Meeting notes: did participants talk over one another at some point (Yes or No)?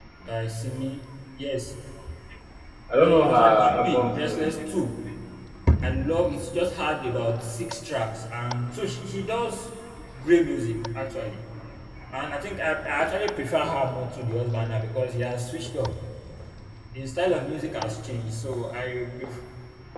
Yes